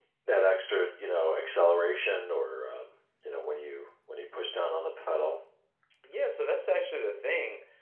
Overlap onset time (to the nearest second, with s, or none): none